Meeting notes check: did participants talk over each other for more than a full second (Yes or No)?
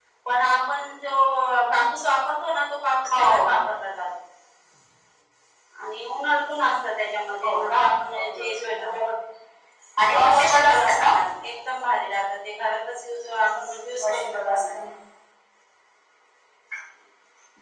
Yes